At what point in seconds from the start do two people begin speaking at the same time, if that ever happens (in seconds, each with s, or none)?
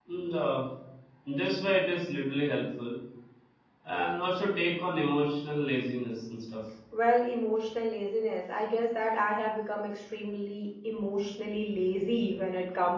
none